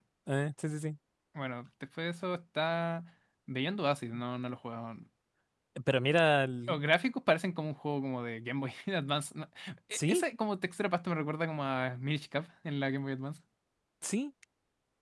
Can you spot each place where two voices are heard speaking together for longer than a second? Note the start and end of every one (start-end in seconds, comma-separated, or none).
none